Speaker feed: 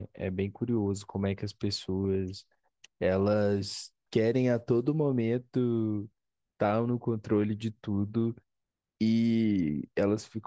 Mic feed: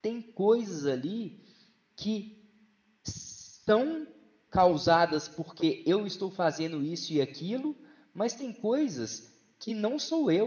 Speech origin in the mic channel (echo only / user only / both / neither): user only